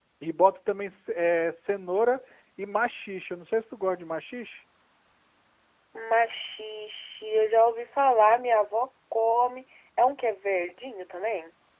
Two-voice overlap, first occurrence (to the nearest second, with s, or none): none